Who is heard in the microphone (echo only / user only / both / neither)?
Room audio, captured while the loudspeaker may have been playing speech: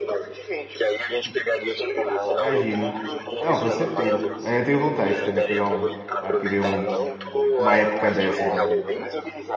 both